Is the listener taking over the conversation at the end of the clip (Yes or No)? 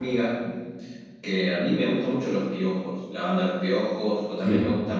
No